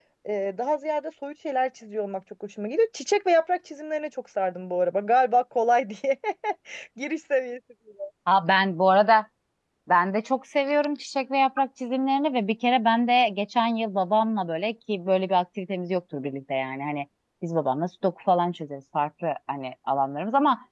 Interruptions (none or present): none